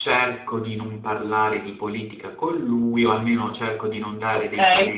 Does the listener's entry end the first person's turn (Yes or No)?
No